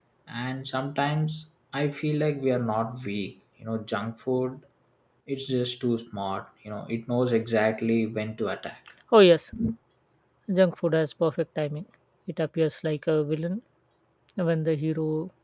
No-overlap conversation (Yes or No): Yes